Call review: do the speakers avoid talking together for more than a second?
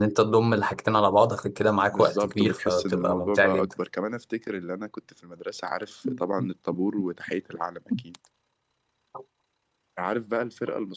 No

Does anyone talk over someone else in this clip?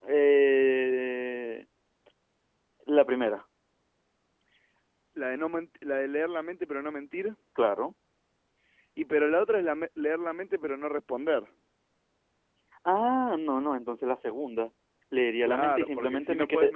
Yes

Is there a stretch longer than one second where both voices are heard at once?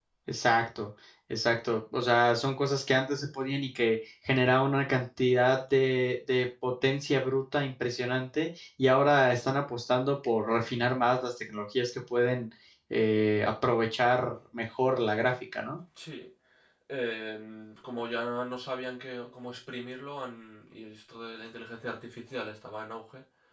No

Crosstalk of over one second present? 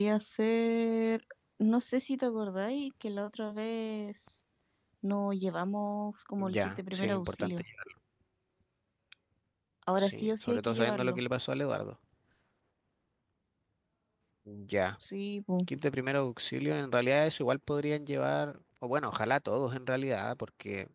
Yes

